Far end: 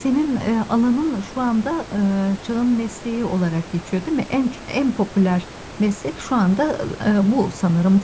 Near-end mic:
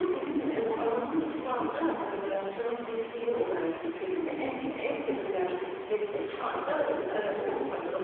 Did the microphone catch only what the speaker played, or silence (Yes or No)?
Yes